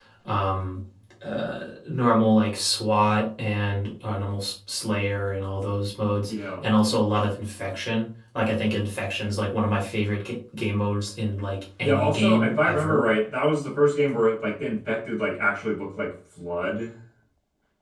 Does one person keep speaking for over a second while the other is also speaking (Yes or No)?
Yes